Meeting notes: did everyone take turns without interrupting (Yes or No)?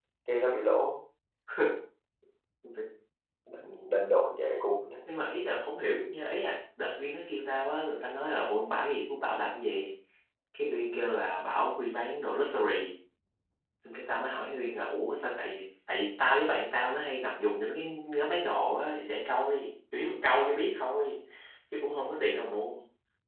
Yes